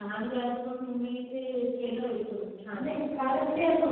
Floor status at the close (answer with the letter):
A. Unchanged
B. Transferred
B